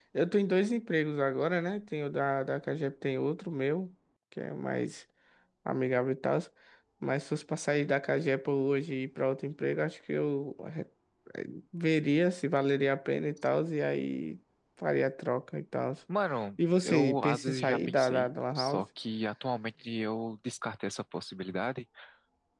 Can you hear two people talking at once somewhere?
Yes, from 16.8 s

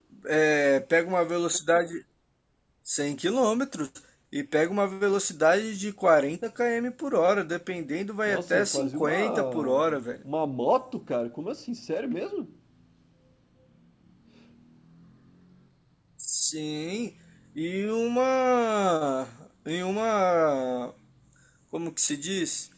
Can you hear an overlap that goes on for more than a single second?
Yes, from 8.3 s

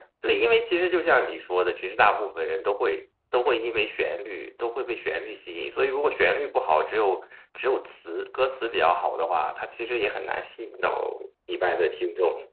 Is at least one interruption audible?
No

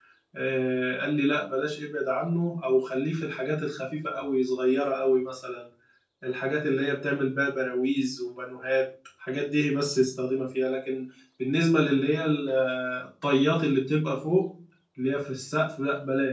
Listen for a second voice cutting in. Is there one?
No

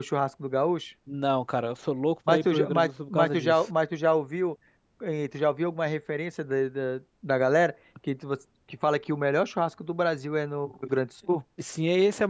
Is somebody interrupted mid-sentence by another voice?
Yes, from 2.3 s

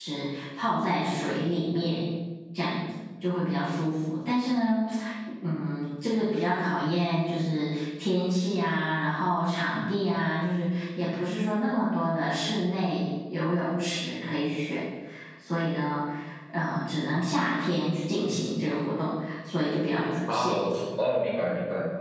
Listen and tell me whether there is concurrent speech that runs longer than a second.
No

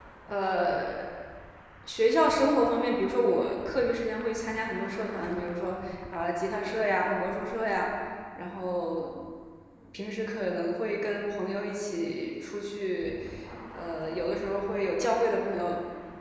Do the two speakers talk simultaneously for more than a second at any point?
No

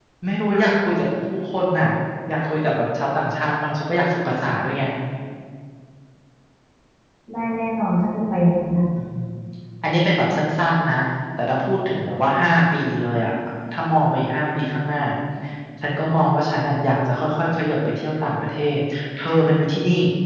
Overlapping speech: No

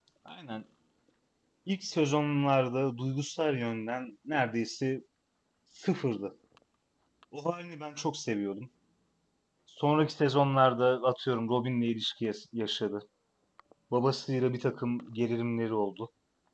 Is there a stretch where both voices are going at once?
No

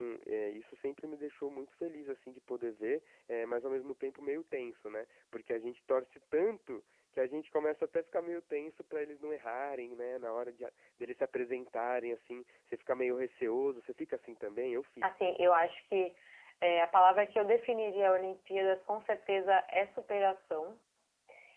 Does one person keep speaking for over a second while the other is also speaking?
No

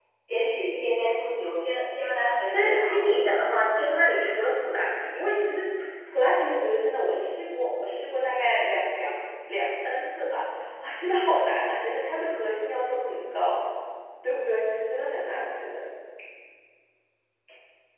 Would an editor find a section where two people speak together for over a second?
No

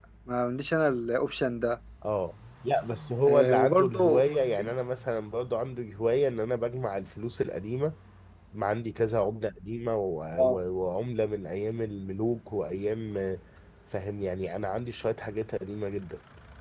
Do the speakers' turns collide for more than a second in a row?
Yes, from 3.3 s

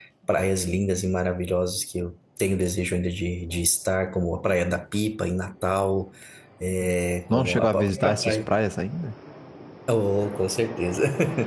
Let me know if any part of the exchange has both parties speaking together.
Yes, from 7.3 s

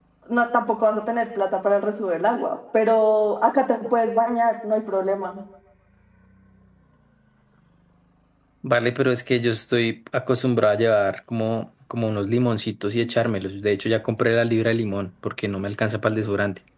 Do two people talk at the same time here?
No

